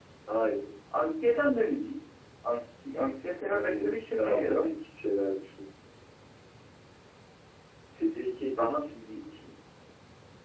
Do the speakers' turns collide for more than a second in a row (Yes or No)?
Yes